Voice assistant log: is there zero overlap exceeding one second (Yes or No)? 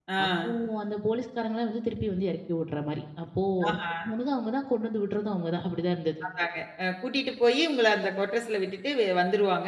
Yes